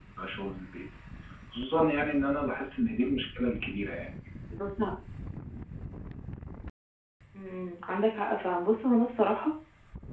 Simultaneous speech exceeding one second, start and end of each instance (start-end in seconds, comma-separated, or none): none